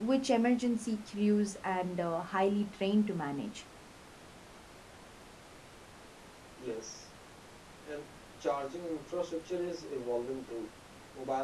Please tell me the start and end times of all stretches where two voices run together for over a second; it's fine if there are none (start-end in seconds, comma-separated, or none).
none